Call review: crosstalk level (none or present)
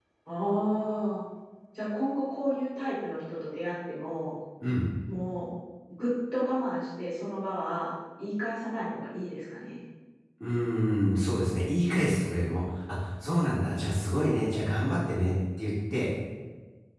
none